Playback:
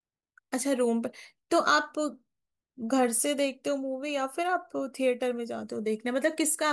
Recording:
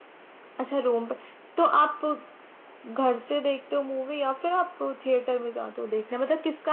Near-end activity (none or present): none